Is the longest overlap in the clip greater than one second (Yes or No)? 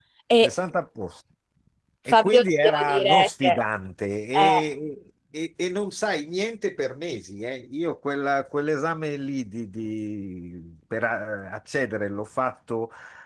Yes